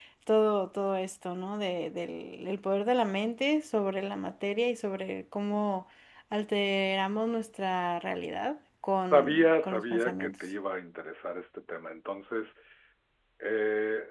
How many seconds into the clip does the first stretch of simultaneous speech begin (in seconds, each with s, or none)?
9.1 s